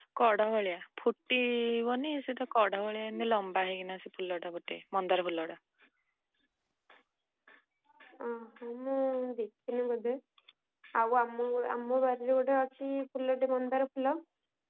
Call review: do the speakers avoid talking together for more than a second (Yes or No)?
Yes